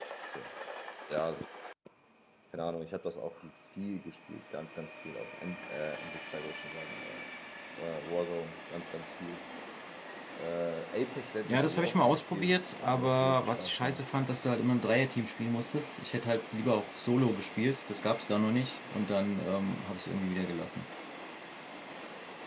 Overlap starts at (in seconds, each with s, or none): 11.4 s